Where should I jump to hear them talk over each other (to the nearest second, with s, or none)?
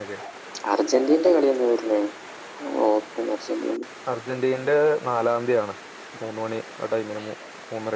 none